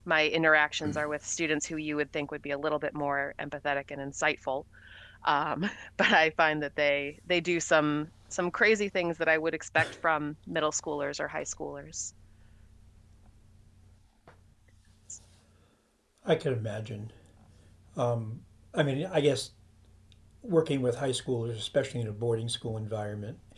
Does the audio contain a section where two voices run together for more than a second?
No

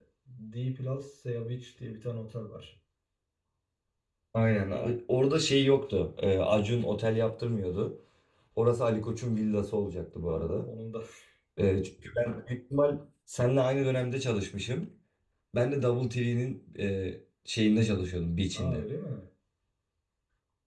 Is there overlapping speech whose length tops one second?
No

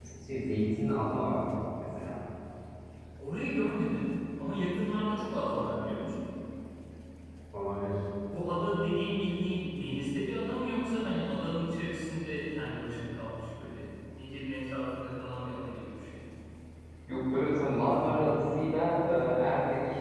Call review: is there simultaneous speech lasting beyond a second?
No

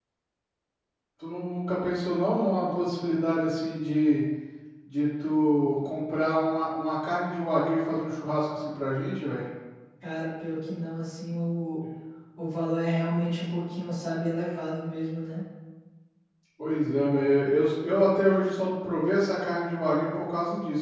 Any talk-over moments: No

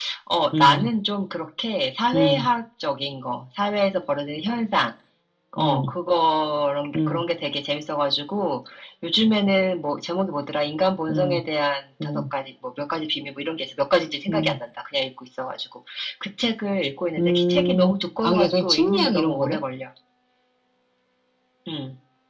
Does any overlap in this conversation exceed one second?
Yes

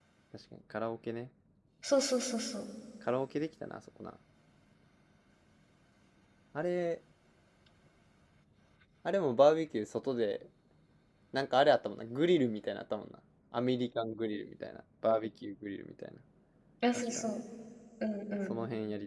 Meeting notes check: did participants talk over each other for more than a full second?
No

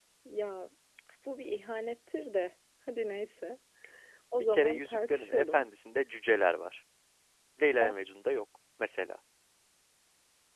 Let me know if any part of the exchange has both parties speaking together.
Yes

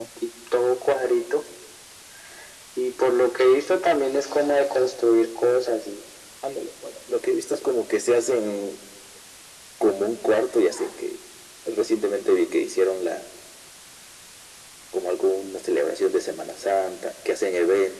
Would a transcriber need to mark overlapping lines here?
No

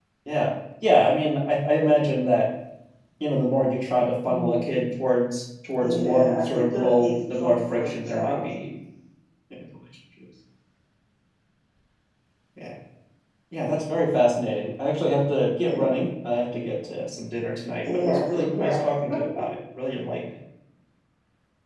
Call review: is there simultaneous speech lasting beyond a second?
Yes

